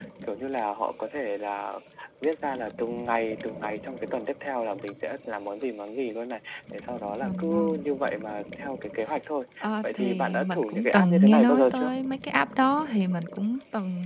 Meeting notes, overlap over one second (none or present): present